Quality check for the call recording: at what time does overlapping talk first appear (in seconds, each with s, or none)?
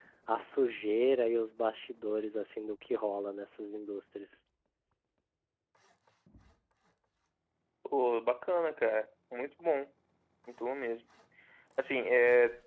none